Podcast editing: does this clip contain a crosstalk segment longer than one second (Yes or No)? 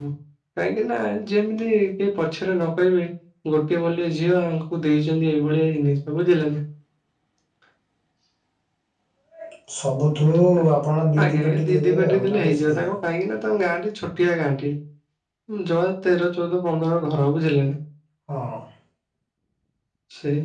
Yes